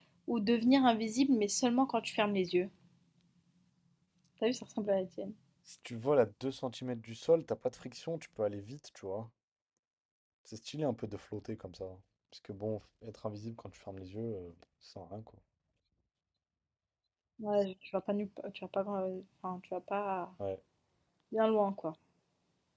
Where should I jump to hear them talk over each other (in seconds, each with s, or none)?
none